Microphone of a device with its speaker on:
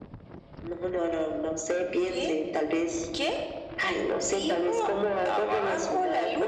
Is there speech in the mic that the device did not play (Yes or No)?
No